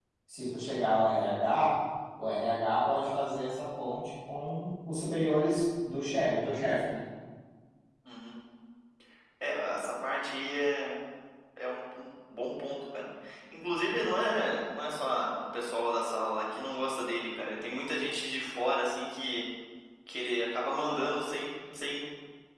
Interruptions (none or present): none